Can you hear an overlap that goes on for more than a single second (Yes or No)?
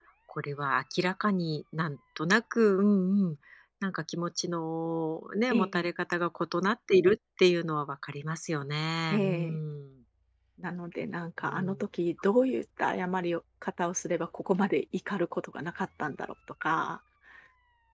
No